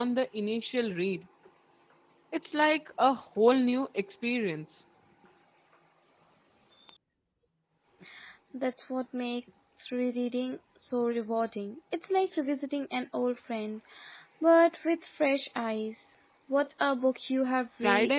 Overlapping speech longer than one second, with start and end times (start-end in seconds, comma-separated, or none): none